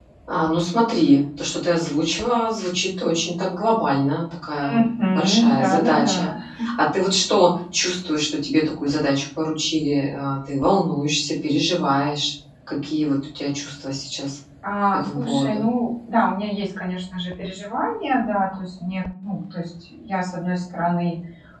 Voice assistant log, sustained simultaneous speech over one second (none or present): present